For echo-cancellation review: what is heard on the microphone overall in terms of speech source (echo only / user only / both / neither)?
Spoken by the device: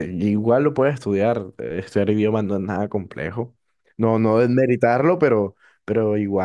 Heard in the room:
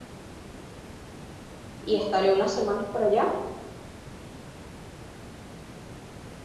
user only